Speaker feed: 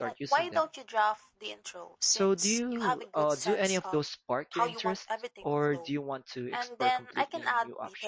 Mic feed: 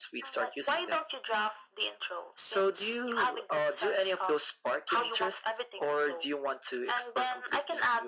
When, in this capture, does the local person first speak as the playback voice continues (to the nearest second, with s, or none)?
none